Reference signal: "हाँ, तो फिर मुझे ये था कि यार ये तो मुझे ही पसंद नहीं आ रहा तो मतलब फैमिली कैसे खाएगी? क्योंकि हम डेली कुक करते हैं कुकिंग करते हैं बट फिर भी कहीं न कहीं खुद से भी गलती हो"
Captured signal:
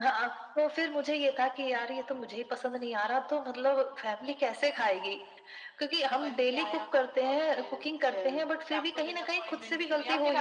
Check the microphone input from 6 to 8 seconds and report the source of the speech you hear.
both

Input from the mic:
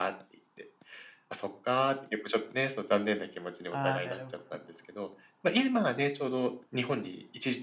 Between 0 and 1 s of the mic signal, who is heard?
echo only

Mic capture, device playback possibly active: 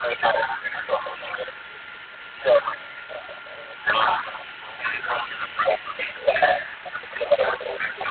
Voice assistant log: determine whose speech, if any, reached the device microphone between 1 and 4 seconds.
echo only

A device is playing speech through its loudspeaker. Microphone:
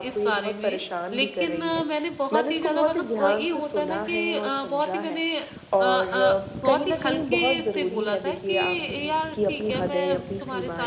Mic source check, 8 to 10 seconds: both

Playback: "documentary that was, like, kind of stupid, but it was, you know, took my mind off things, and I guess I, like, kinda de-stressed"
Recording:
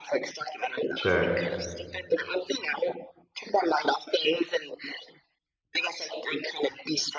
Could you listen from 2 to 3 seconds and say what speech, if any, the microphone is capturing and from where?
echo only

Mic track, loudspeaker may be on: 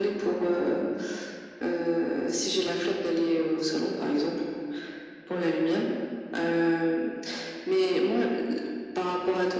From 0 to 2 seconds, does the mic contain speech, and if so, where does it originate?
echo only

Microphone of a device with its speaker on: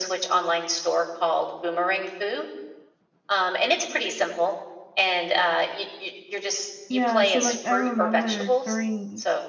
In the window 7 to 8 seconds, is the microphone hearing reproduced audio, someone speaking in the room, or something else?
both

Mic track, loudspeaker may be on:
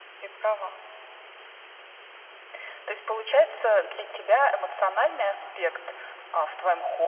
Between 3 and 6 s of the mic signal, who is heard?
echo only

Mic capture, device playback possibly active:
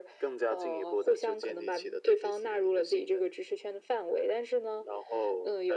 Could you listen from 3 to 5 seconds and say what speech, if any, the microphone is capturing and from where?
echo only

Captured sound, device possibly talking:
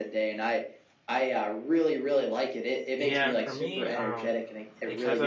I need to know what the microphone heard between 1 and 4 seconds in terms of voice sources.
both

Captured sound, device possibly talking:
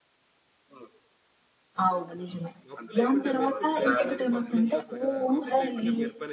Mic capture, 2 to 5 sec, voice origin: both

